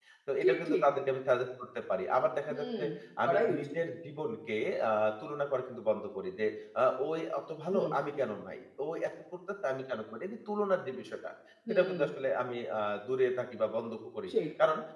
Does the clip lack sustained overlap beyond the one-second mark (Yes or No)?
Yes